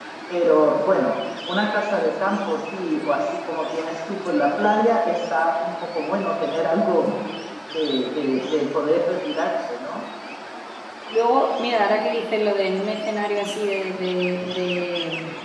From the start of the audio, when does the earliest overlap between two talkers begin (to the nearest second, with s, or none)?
none